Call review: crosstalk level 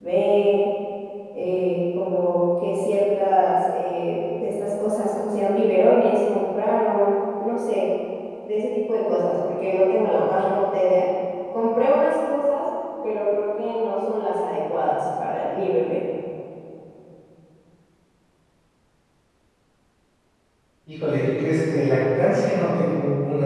none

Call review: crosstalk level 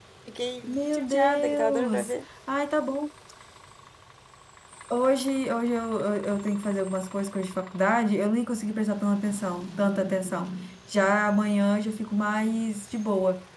present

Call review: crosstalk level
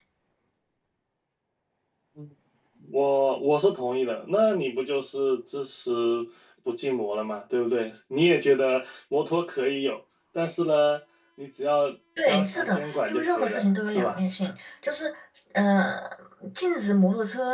present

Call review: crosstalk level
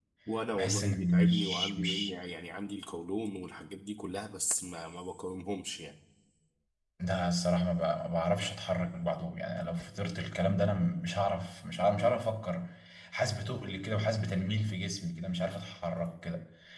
present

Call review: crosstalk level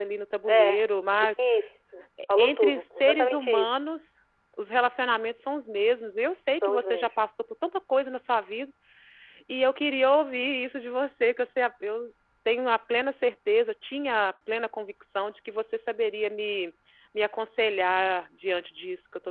present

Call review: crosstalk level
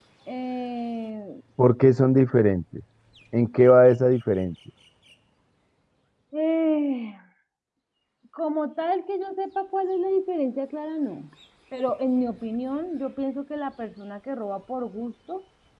none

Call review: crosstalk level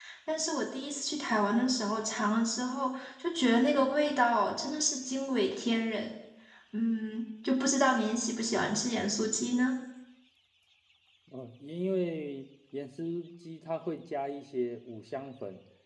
none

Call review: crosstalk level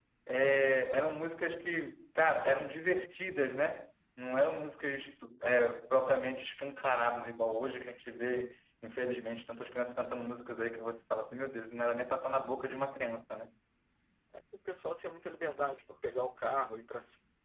none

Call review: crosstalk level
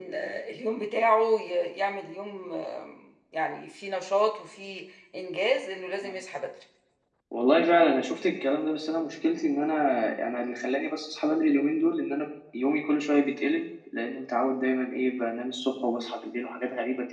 none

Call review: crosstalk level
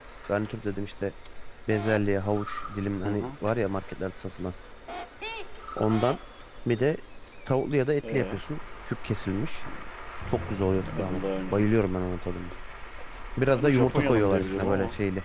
present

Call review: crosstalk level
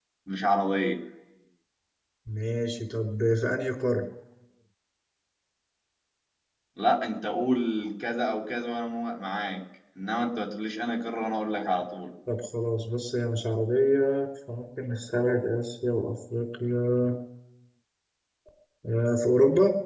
none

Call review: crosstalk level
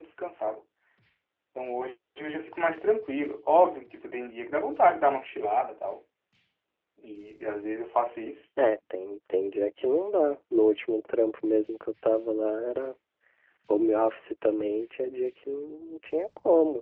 none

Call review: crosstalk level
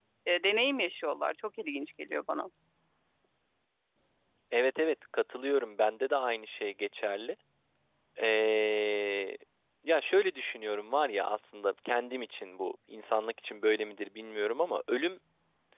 none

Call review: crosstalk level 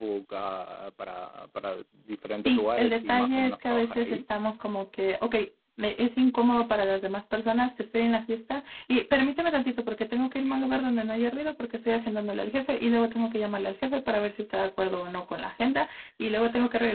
present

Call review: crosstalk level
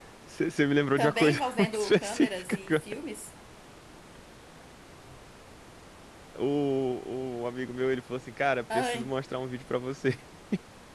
present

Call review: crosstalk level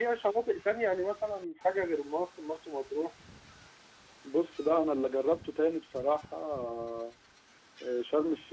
none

